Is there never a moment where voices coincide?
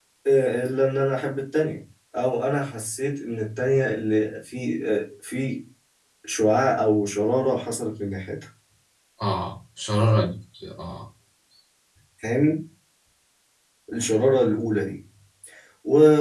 Yes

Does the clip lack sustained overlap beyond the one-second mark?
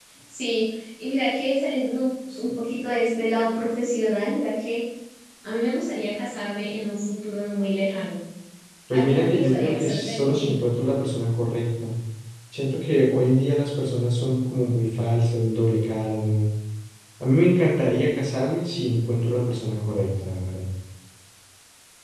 No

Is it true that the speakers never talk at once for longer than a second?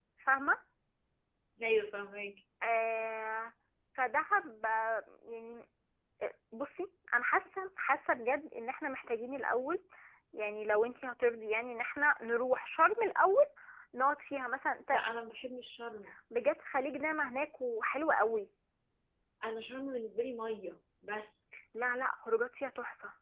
Yes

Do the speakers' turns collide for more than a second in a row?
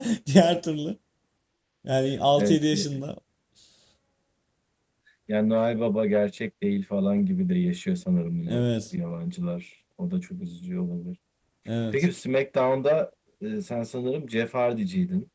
No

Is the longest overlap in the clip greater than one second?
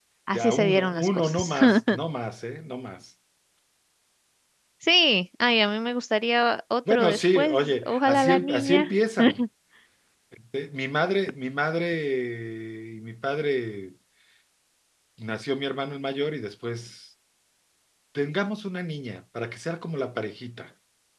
Yes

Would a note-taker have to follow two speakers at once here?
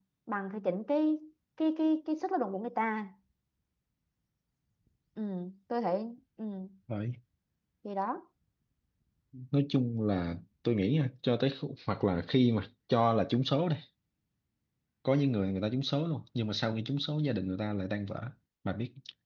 No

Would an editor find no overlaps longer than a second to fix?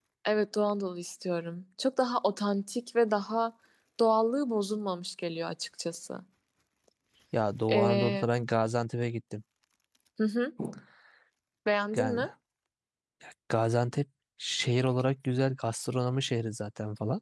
Yes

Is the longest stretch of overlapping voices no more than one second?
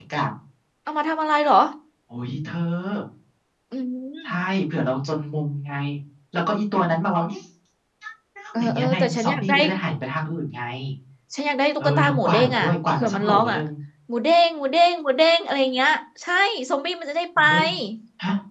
No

